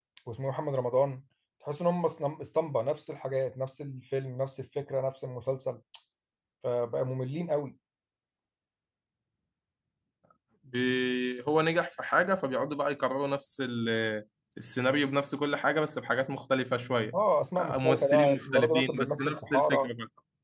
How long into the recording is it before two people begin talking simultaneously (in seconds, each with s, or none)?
17.6 s